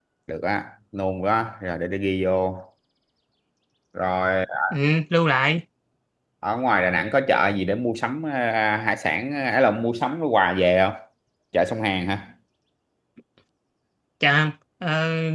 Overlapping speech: No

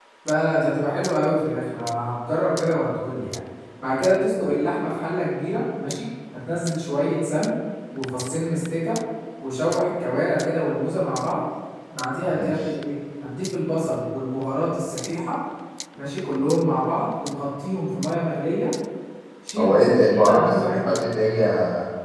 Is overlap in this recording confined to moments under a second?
No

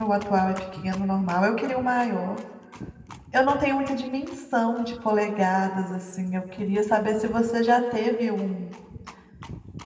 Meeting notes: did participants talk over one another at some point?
No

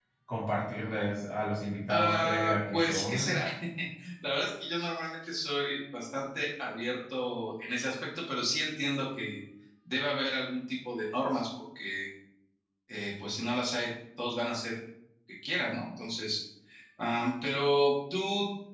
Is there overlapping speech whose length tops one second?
Yes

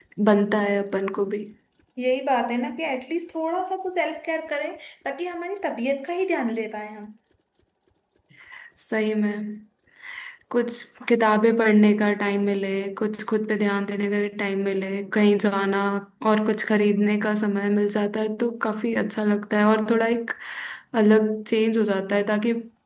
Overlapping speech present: No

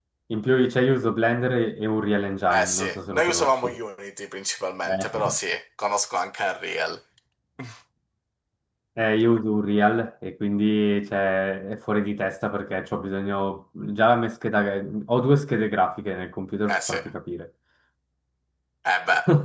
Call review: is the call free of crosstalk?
No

